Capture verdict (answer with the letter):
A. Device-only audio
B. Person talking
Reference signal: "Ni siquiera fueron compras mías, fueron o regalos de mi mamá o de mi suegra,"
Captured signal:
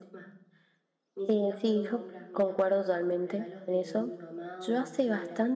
B